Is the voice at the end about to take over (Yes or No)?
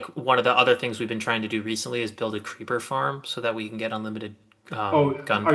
Yes